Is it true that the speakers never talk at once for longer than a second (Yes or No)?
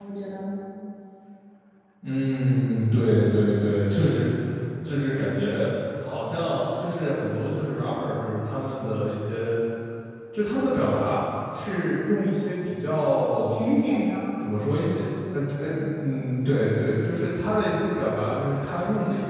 Yes